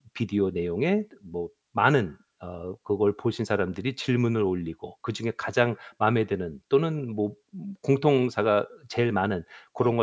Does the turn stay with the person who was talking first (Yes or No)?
Yes